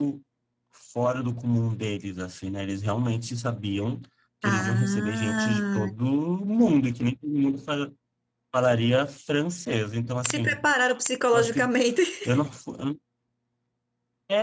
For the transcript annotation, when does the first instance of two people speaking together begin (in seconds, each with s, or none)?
4.4 s